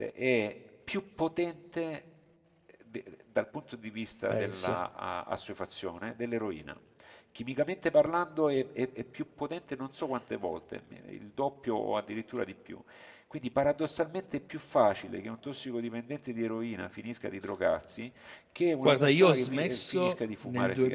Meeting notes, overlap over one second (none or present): present